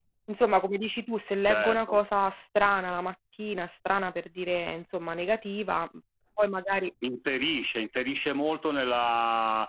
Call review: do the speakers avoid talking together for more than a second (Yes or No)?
Yes